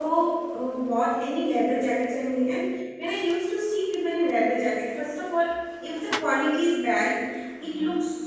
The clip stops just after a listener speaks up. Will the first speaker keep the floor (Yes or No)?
Yes